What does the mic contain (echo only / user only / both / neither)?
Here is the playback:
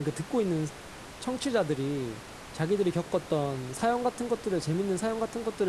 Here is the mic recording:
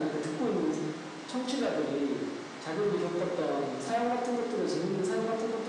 echo only